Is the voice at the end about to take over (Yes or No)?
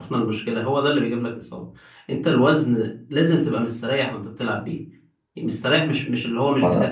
No